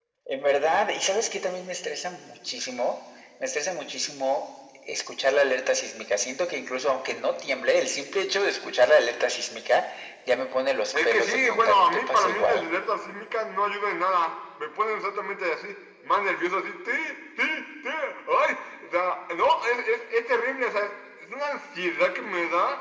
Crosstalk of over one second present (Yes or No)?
Yes